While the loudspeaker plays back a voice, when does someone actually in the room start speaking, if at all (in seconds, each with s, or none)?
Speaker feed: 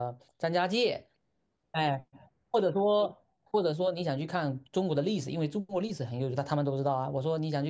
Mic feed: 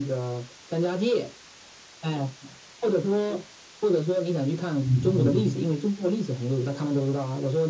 4.8 s